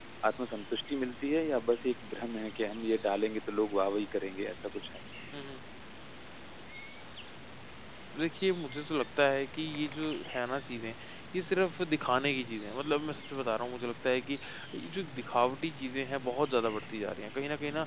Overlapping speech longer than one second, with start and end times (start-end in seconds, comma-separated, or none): none